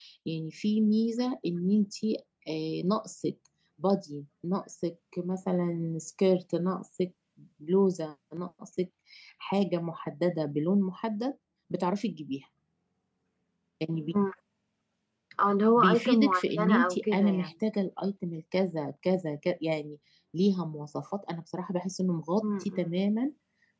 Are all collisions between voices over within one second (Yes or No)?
No